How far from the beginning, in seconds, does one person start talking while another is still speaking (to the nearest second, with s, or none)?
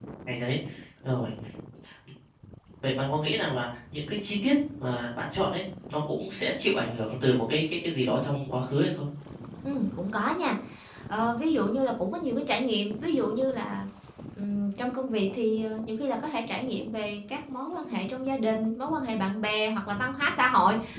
none